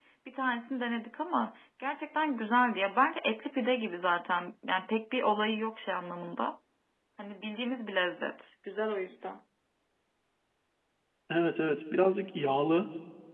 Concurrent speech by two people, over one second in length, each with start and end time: none

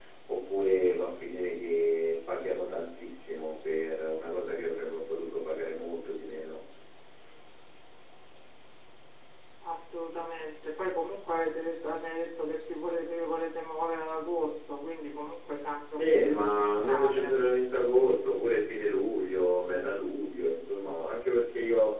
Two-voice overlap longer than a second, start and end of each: 15.9-17.3

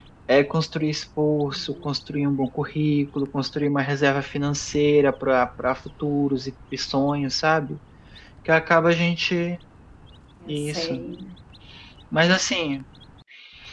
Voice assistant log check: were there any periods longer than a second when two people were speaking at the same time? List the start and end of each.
none

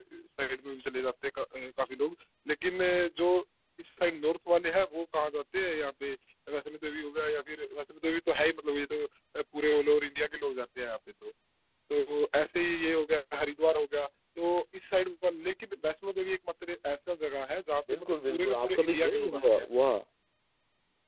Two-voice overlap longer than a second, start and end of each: 17.9-19.7

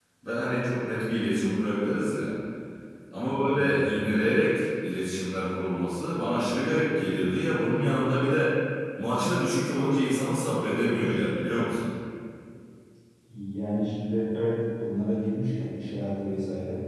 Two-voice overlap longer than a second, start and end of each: none

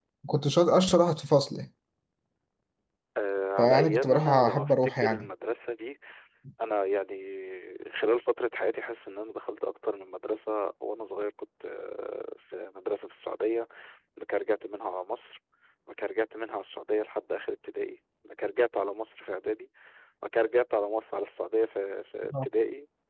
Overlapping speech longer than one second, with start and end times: 3.6-5.3

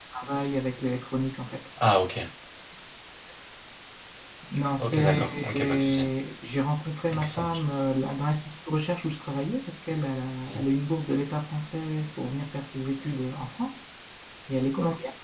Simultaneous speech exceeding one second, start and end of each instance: 4.8-6.0

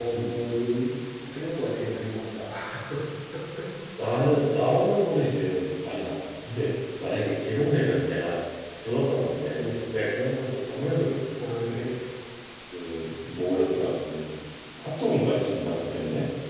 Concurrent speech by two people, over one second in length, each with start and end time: none

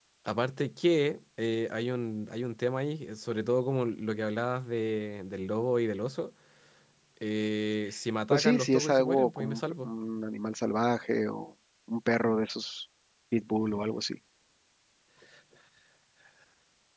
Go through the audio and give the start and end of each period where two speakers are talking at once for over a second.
8.3-9.9

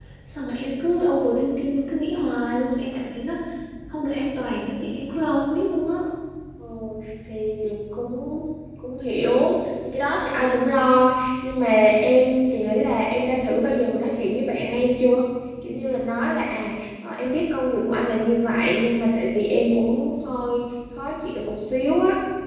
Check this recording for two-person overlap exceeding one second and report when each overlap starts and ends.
none

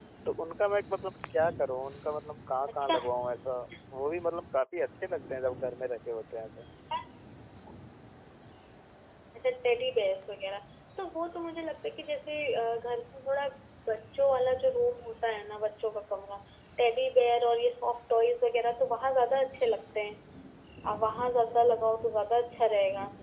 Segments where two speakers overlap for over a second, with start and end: none

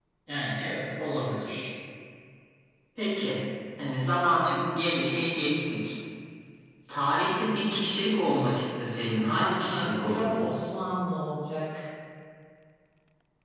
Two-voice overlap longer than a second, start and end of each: 9.3-10.6

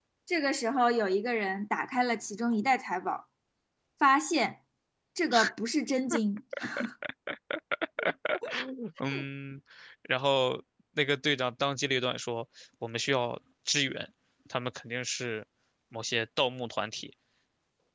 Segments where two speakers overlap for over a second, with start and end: none

